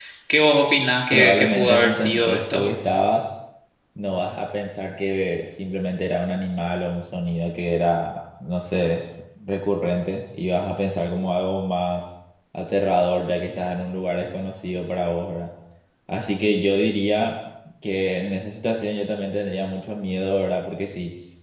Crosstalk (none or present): present